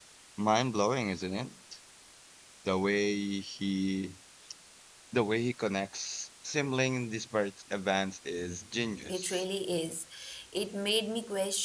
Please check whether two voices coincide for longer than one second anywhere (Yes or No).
No